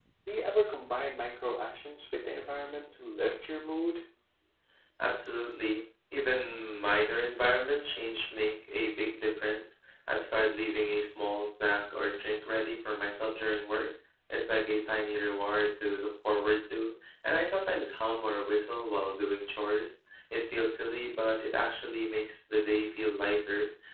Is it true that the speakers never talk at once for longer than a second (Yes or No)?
Yes